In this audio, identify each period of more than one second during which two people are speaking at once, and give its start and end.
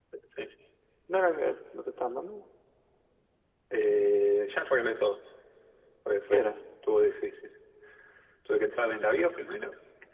none

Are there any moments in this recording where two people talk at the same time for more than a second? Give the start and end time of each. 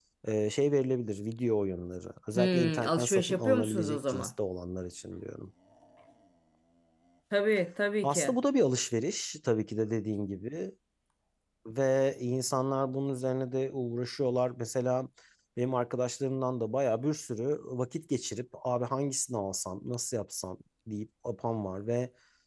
2.4-4.3

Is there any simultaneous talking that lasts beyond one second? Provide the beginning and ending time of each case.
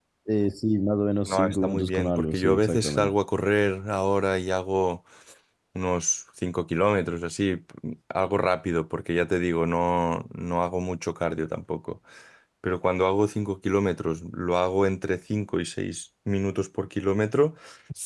1.3-3.1

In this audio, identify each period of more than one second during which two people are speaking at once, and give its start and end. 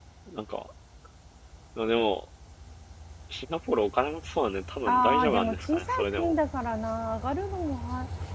4.9-6.3

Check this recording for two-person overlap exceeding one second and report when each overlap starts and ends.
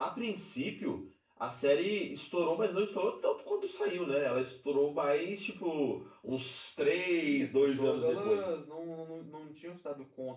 7.2-8.5

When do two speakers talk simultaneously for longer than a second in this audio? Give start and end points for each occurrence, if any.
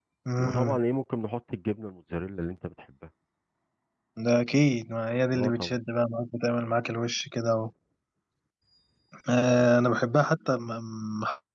none

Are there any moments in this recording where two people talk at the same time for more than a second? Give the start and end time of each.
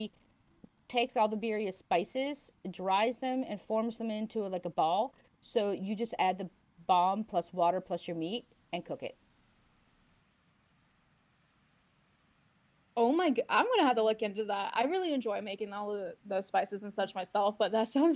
none

